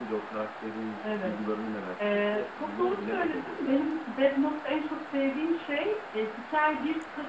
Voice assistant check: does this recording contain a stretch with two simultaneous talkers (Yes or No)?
Yes